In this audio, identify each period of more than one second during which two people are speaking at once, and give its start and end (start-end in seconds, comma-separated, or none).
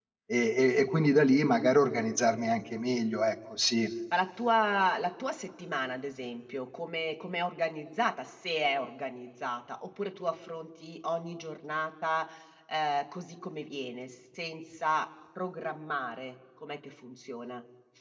none